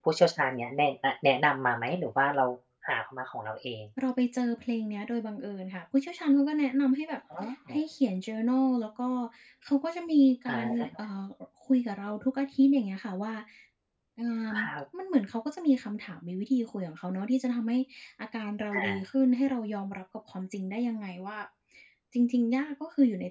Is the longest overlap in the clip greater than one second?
No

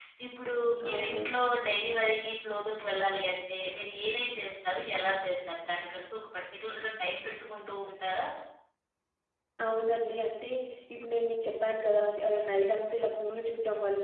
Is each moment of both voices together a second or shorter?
Yes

